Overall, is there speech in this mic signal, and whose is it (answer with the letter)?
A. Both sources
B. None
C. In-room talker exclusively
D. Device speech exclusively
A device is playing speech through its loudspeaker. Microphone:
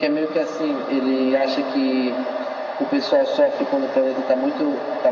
D